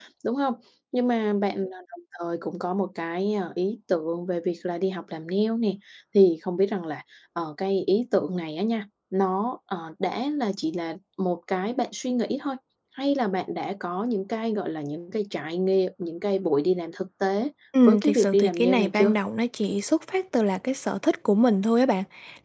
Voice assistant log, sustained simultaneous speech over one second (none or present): present